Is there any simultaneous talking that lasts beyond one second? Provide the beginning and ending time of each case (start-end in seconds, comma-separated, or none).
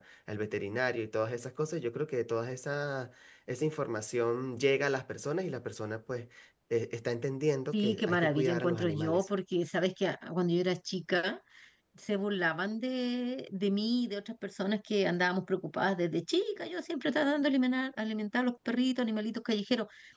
7.7-9.3